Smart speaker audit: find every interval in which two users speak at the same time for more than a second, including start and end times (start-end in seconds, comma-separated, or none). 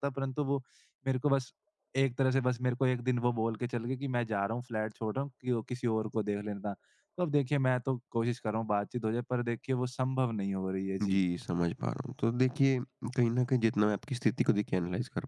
none